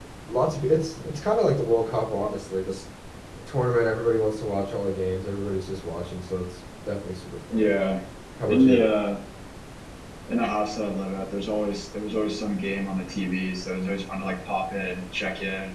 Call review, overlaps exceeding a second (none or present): none